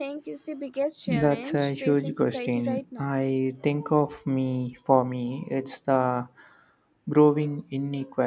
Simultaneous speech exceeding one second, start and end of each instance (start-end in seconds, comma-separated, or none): 1.2-2.6